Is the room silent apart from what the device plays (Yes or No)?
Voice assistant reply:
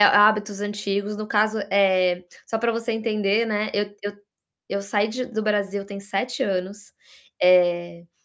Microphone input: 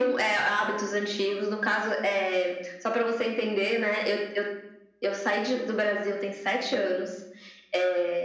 Yes